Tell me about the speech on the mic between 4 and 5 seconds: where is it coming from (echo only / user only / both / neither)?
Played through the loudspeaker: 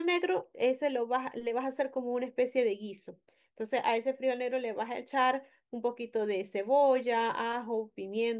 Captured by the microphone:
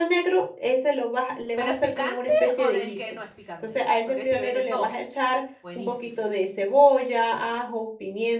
both